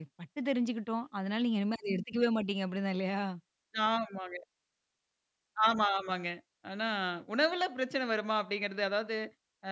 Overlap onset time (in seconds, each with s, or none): none